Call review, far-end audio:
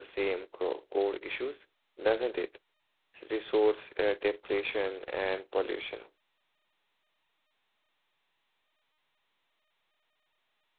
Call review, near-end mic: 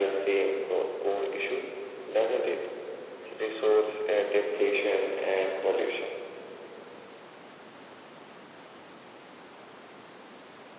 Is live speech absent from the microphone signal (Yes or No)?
Yes